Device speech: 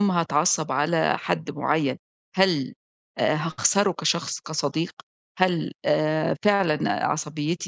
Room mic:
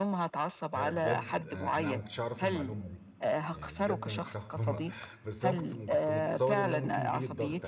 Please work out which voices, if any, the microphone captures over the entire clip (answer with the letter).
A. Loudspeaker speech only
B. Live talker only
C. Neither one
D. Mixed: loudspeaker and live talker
D